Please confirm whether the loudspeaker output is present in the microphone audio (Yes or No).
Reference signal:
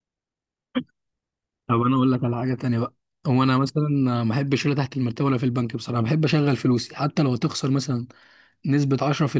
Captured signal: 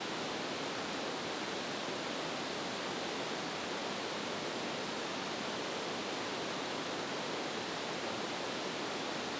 No